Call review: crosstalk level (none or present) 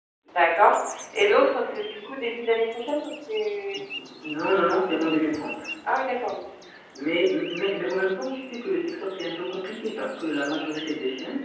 none